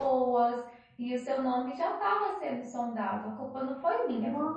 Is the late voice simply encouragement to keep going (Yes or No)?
No